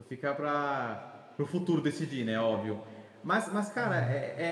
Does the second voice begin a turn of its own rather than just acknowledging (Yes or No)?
No